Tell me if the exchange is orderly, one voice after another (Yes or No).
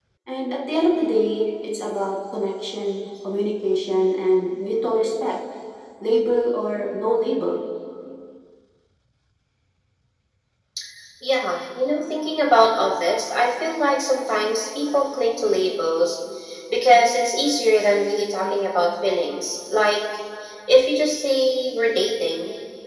Yes